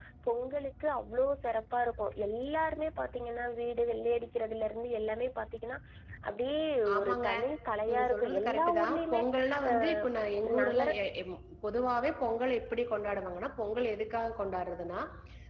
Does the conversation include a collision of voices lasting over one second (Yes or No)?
Yes